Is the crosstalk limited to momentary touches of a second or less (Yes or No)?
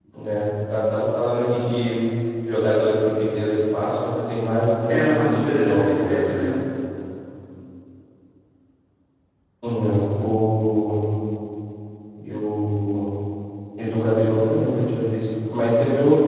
No